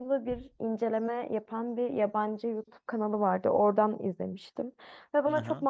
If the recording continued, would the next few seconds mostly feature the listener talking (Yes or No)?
No